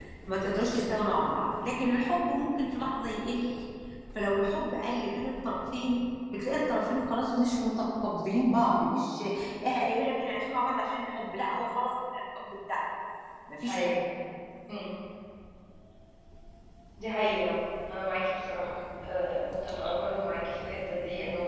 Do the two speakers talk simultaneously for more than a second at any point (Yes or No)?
No